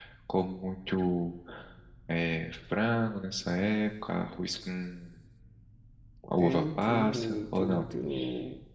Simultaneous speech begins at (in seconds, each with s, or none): 6.4 s